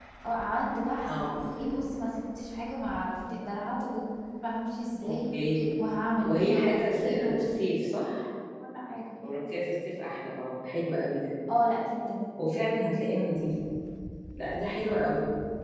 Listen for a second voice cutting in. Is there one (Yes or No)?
Yes